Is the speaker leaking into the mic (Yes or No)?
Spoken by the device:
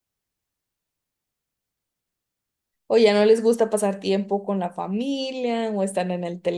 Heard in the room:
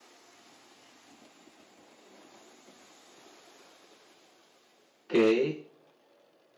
No